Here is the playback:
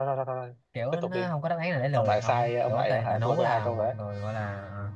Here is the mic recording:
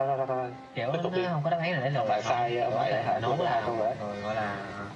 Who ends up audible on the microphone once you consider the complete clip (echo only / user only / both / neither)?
echo only